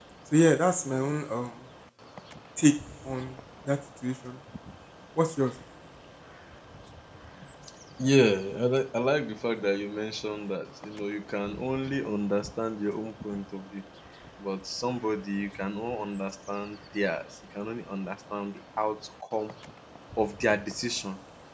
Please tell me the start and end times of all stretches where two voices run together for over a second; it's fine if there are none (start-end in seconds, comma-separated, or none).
none